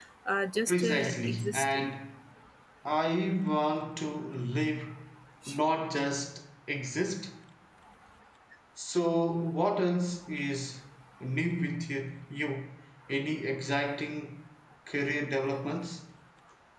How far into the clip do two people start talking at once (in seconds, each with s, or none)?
0.7 s